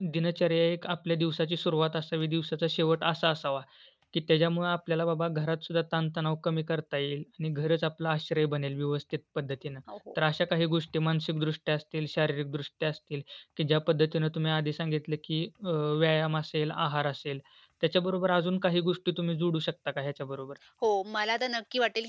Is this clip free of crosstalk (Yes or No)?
Yes